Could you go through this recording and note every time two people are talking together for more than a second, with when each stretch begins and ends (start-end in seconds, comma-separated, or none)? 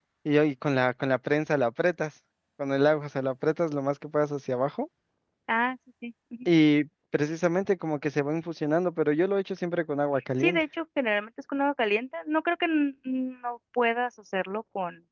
none